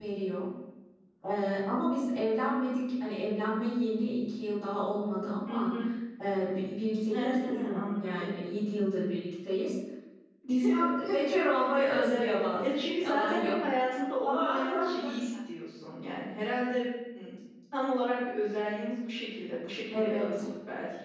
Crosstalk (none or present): present